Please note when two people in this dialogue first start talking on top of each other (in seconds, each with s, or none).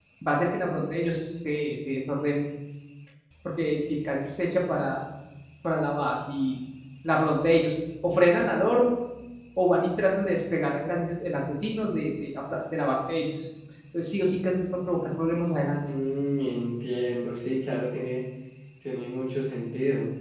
none